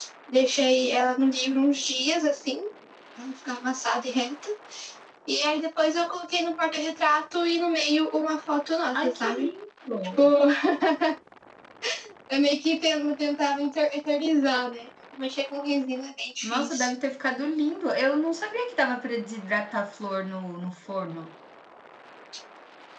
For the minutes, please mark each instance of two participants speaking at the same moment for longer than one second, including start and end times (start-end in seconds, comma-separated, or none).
none